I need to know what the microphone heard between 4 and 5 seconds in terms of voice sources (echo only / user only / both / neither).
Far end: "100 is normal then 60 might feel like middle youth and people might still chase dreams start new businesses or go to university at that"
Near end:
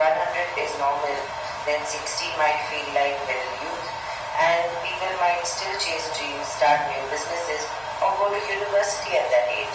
echo only